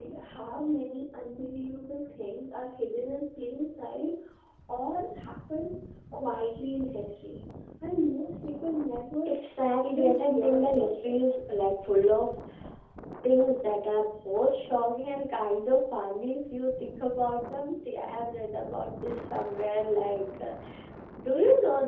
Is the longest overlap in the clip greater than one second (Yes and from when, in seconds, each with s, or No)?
Yes, from 9.8 s